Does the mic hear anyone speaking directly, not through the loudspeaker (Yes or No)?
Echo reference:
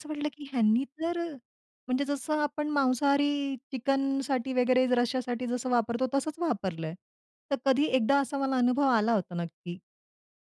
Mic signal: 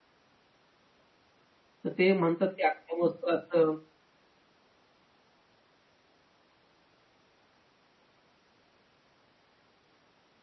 Yes